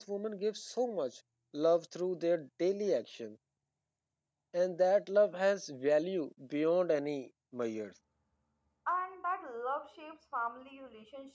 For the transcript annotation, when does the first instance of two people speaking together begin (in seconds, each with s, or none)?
none